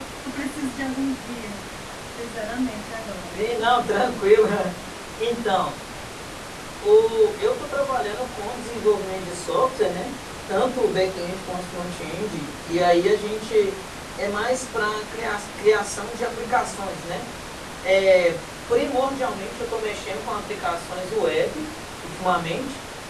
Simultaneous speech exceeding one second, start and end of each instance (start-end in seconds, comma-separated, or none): none